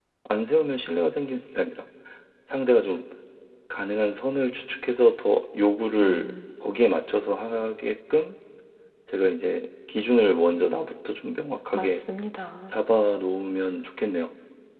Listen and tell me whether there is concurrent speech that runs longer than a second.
No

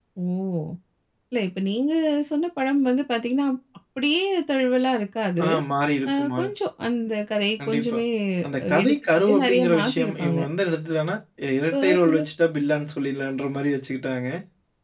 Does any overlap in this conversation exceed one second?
Yes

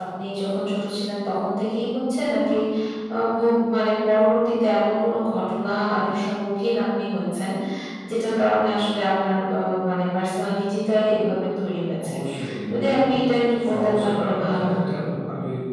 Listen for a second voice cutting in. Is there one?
Yes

